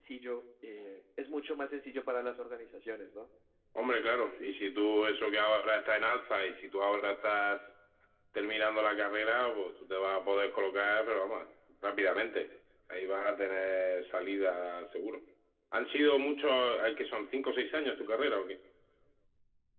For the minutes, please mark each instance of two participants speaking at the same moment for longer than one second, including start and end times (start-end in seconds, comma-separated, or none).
none